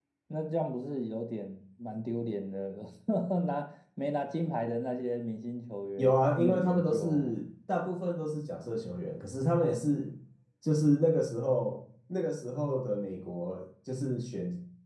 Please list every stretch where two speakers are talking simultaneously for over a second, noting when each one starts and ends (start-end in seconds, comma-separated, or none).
6.0-7.3